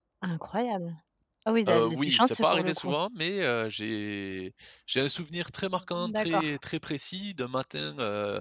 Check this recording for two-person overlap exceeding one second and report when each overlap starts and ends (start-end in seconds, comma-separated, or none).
1.7-3.0